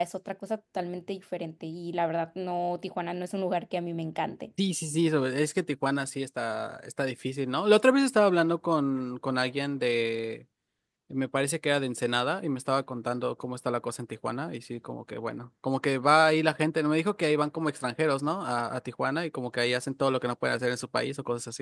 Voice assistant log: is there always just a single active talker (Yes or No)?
Yes